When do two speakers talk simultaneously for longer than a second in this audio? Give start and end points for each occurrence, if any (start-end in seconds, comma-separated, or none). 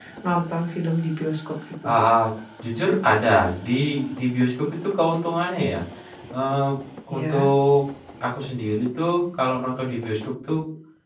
none